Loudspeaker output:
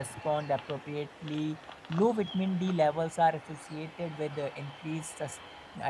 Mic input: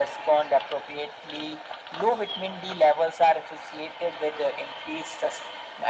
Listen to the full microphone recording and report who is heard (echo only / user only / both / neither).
echo only